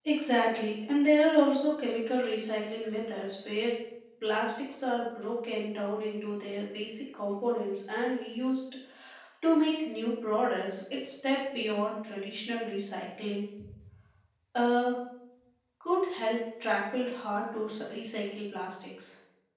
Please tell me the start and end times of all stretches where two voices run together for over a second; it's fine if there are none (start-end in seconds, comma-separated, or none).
none